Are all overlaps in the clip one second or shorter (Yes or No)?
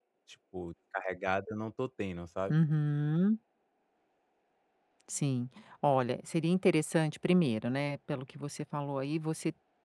Yes